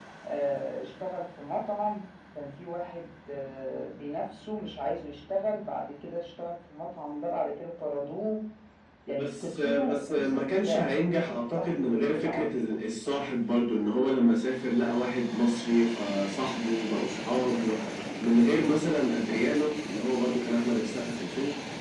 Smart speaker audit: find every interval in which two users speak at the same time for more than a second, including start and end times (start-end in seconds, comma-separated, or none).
9.2-12.8